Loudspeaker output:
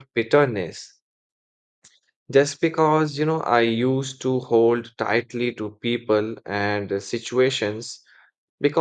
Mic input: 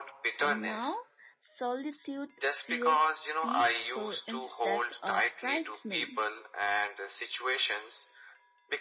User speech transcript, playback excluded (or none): And now solitude feels peaceful instead of frightening.